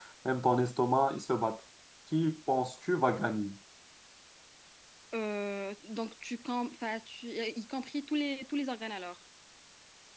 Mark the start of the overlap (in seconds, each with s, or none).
none